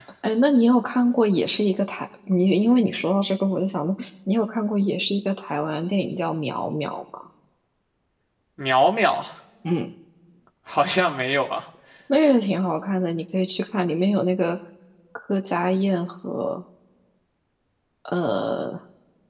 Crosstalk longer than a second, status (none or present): none